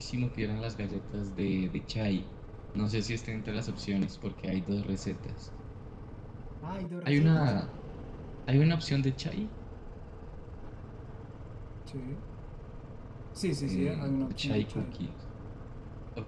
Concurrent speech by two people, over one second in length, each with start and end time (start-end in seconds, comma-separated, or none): 13.6-14.9